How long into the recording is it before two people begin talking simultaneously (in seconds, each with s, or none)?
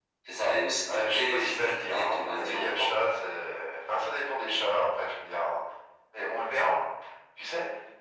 0.9 s